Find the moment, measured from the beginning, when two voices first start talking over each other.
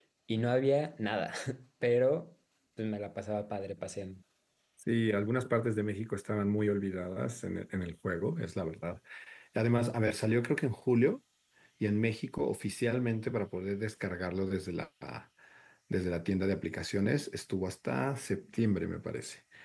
none

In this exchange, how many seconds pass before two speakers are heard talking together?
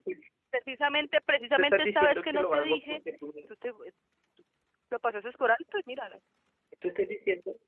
2 s

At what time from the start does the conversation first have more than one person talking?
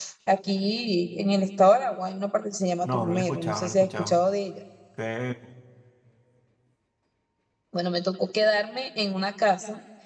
3 s

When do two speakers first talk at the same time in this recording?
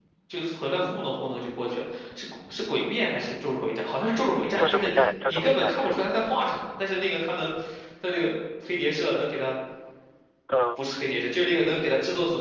5 s

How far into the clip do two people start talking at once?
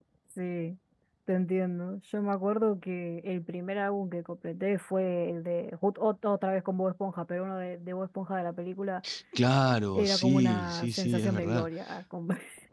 10 s

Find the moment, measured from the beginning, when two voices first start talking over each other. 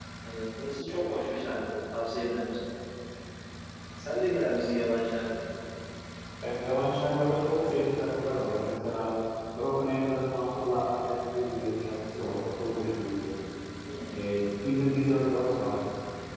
none

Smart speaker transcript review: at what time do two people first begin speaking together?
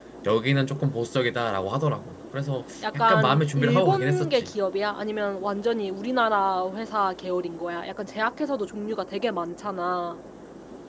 3 s

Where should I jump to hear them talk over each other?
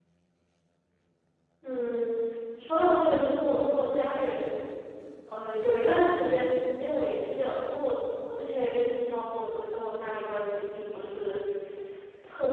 none

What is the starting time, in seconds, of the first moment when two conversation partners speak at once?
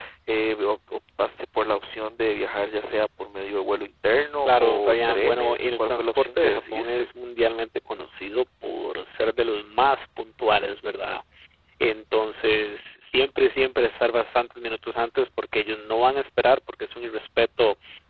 4 s

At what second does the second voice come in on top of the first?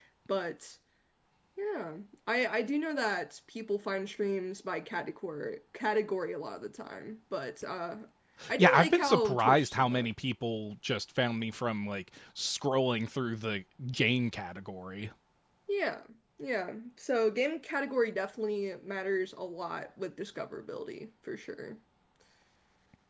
9 s

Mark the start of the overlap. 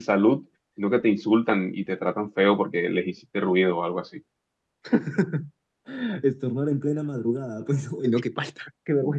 none

